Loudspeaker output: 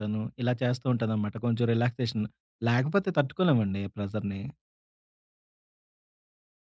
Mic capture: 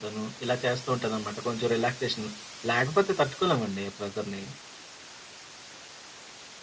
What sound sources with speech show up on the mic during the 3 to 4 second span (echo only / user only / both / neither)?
echo only